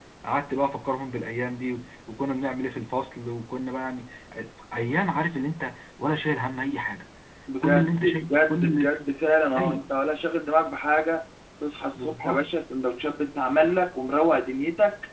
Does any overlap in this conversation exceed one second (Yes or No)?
Yes